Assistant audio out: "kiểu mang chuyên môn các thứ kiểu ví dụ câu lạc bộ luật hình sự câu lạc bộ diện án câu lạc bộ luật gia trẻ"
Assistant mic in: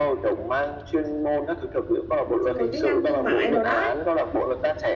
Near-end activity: present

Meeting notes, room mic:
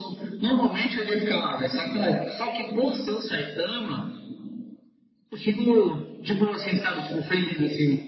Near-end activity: none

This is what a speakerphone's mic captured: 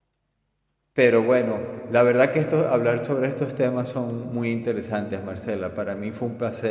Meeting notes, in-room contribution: present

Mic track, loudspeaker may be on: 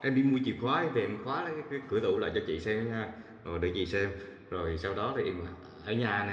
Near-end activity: present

